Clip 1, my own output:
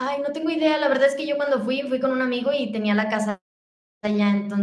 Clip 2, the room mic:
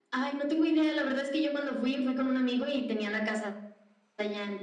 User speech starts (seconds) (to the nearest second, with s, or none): none